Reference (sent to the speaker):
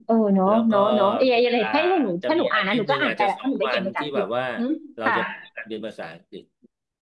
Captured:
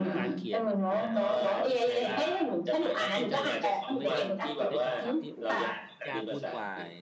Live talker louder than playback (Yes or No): No